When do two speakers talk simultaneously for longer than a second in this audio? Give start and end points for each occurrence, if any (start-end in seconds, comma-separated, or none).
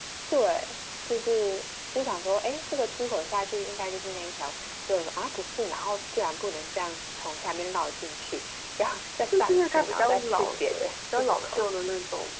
9.3-11.6